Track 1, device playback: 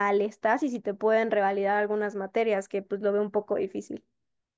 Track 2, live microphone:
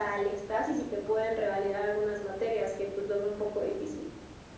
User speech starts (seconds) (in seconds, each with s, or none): none